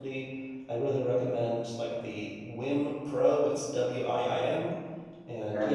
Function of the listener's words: listening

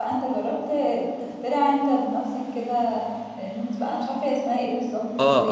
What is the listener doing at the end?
taking over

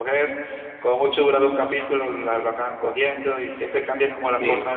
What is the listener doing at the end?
listening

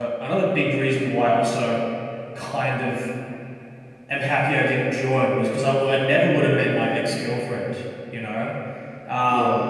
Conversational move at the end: listening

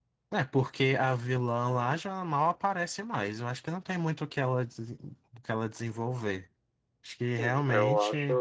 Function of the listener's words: taking over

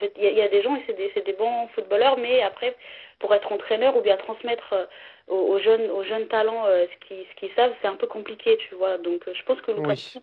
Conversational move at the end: listening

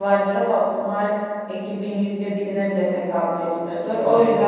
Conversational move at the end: listening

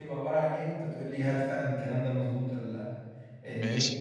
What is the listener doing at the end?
listening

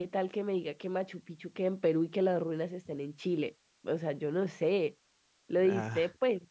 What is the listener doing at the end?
listening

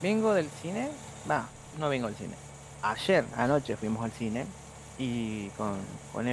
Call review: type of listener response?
listening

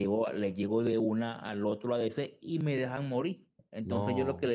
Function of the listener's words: listening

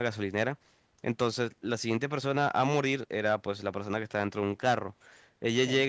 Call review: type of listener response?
listening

